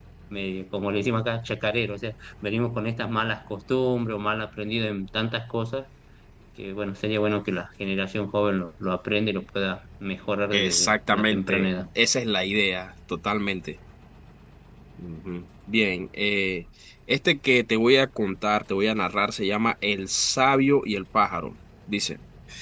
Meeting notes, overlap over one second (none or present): present